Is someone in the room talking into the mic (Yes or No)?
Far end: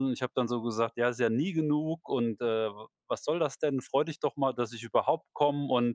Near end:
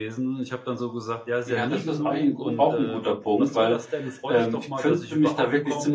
Yes